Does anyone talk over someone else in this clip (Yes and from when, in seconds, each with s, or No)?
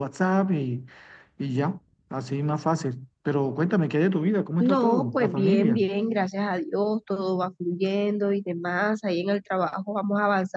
Yes, from 4.6 s